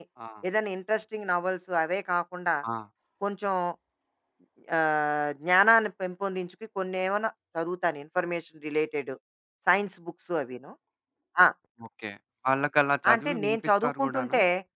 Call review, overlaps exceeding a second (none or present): present